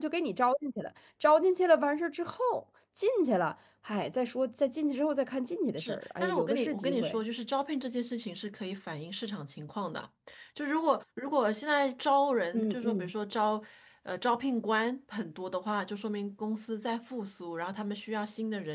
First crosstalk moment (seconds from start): 5.8 s

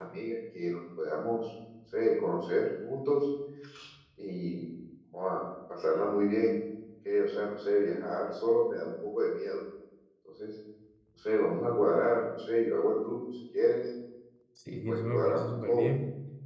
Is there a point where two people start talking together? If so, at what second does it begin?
14.7 s

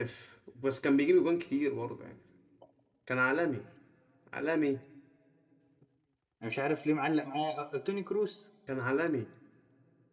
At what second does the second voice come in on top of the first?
none

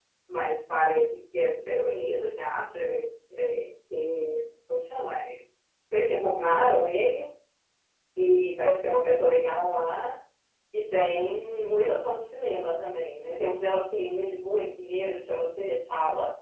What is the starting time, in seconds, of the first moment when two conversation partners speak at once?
none

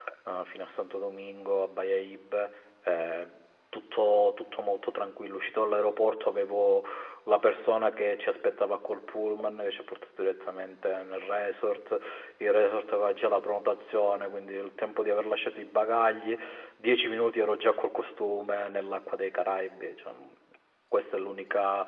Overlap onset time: none

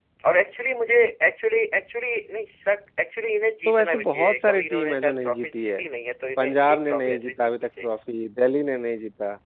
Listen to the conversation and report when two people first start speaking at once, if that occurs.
3.6 s

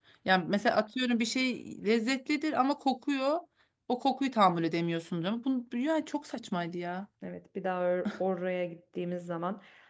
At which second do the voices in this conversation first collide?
none

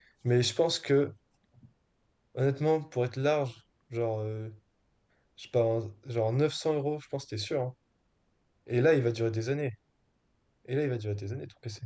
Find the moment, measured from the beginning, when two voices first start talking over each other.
none

